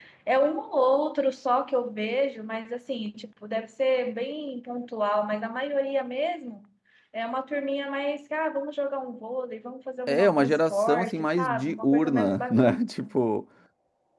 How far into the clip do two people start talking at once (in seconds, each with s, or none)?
10.1 s